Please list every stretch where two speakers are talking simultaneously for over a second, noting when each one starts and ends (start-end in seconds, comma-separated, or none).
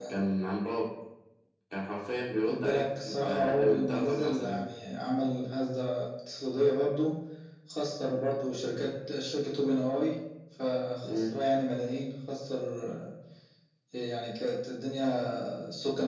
2.5-4.6